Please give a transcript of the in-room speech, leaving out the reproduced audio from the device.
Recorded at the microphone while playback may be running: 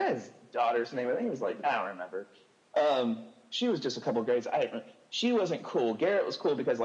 none

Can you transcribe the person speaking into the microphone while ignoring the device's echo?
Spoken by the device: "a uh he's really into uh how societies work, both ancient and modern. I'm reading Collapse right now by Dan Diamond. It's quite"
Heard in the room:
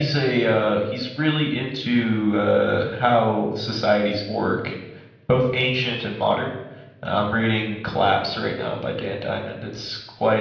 none

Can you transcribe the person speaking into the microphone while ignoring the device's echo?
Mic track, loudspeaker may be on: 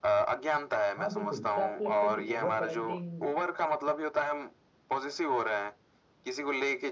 हाँ बिल्कुल क्या आपको लगता है कि ओवर पेरेंटिंग

